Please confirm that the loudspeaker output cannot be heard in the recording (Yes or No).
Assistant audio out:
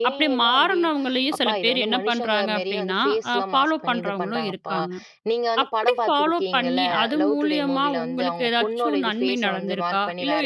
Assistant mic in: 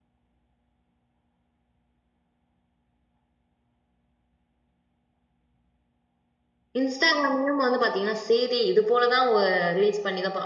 Yes